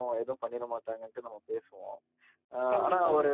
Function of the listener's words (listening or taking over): listening